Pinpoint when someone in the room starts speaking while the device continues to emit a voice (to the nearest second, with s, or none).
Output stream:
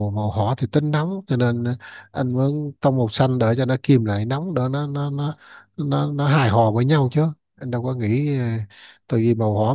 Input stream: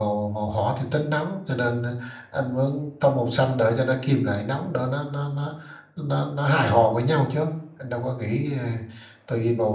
none